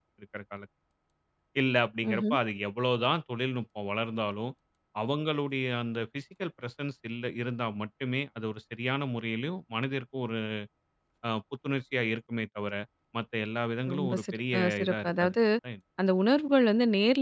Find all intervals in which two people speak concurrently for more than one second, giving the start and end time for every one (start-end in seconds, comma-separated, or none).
13.9-15.3